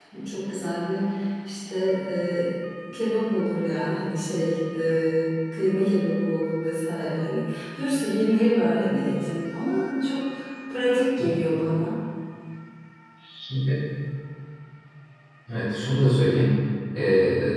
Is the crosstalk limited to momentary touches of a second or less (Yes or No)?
Yes